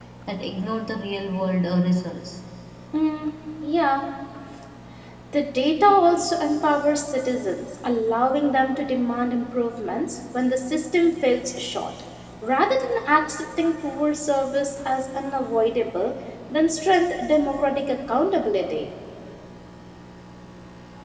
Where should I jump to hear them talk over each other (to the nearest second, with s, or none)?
none